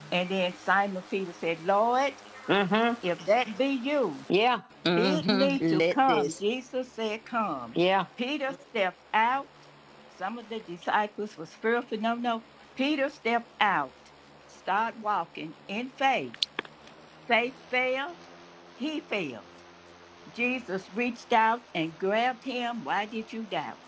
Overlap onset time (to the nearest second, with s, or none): 5 s